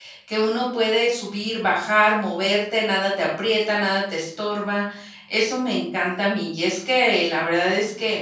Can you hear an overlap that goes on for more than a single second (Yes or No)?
No